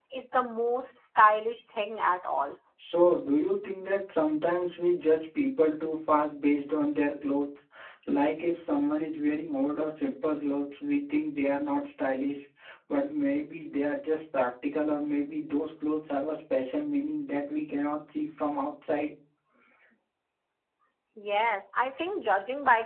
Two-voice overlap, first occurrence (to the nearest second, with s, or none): none